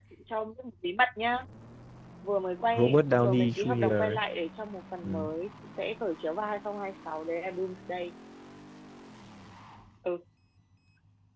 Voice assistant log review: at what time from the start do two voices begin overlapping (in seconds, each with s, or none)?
2.7 s